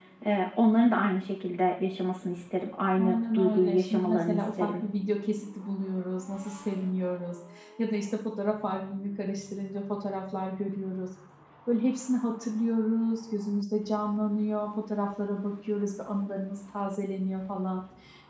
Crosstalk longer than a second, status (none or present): present